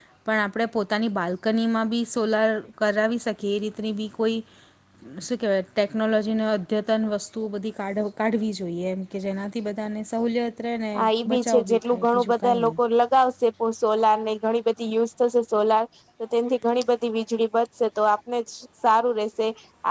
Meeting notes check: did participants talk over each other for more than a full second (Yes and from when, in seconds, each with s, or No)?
Yes, from 11.3 s